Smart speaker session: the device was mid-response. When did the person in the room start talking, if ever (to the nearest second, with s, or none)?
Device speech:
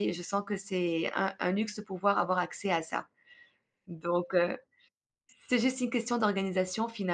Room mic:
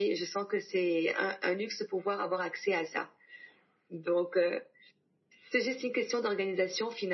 none